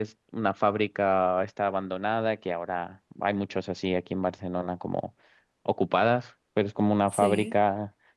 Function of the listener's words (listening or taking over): listening